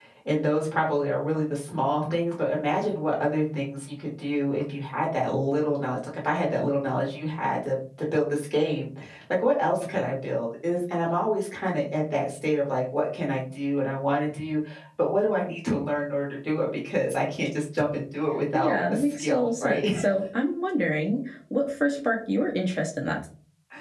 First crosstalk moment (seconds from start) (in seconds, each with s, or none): 18.5 s